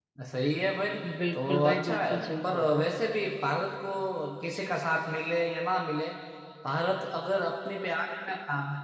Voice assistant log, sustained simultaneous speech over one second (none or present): present